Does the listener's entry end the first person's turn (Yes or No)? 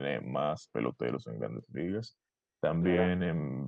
No